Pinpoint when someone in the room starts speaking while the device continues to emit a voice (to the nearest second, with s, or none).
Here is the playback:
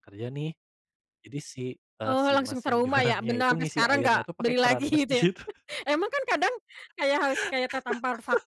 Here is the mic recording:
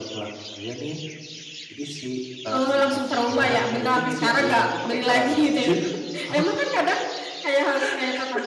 6 s